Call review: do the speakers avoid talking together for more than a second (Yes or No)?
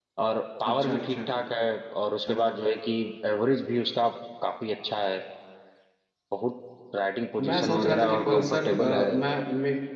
No